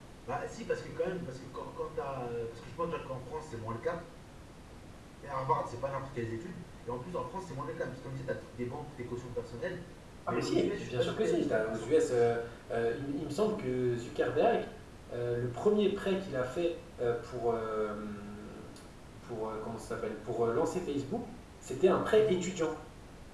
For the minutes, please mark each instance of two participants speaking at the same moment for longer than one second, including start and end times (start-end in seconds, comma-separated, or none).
10.3-12.3